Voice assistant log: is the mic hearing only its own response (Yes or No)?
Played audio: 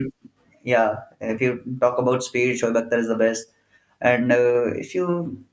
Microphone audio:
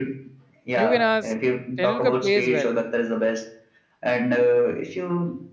No